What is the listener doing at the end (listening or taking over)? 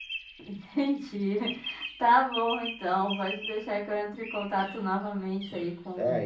taking over